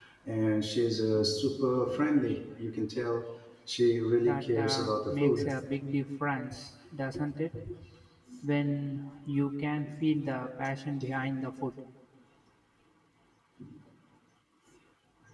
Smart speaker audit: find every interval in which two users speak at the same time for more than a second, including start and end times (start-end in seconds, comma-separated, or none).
4.2-5.5